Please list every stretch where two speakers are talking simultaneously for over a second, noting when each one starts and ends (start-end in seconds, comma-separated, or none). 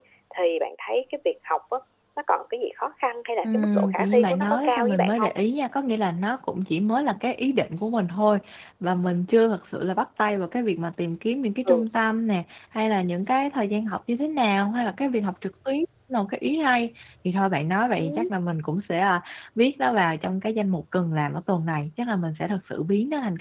3.5-5.3